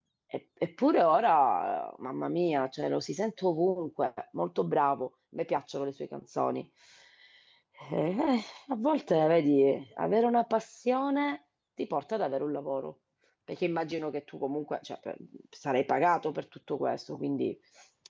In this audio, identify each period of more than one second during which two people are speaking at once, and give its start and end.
none

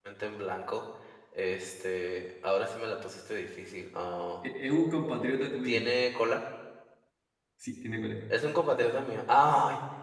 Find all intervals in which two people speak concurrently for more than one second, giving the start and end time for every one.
none

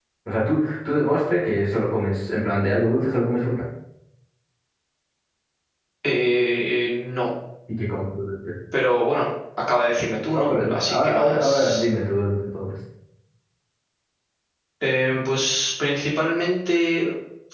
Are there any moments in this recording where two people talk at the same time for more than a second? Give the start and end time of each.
10.3-11.8

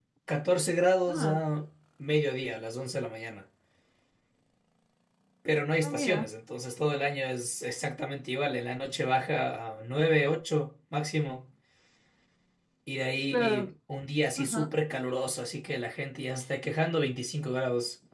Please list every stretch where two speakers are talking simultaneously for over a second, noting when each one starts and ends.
none

